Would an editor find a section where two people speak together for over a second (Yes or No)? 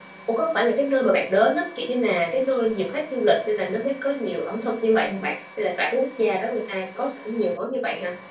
No